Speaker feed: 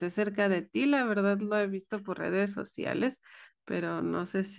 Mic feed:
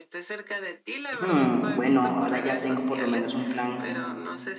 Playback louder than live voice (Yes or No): No